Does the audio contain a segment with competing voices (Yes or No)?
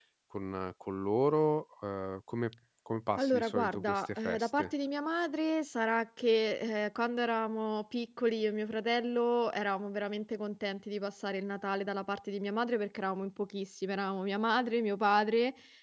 Yes